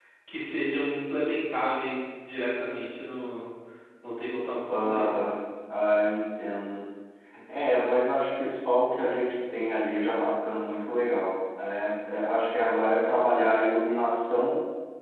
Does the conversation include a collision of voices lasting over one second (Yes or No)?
No